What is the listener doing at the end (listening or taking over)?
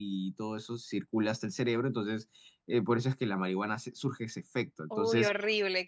taking over